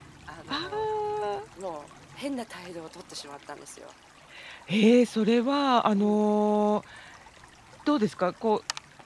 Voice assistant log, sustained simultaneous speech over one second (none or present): none